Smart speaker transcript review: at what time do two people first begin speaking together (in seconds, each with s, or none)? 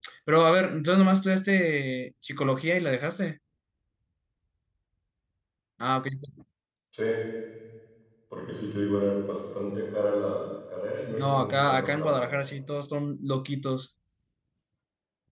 11.1 s